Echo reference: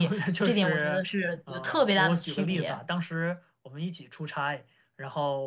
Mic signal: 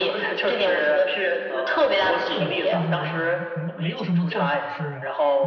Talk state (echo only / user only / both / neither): both